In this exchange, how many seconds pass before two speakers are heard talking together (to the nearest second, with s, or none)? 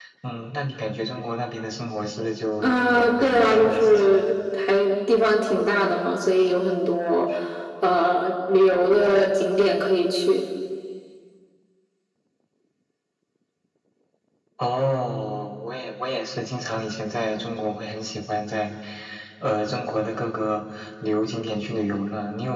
3 s